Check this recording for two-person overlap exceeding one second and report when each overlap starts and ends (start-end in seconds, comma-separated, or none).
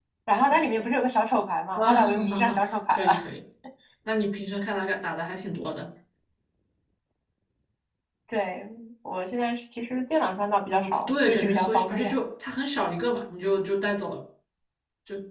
1.8-3.3, 10.7-12.2